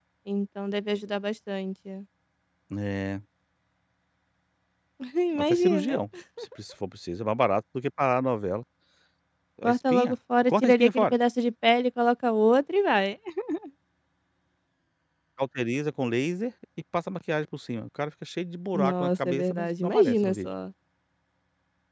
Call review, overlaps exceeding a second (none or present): present